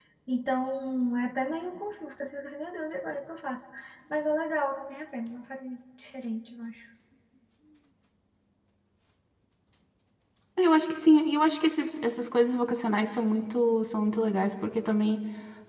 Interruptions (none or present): none